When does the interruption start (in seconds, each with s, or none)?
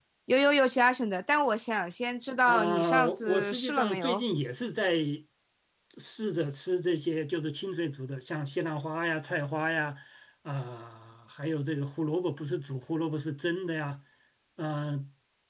2.5 s